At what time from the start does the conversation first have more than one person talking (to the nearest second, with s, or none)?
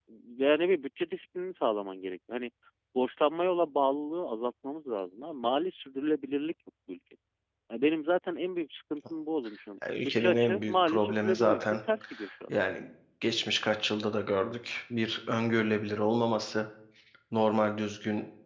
10 s